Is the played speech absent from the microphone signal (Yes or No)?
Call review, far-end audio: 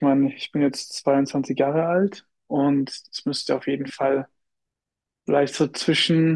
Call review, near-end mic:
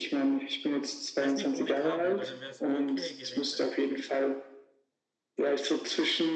No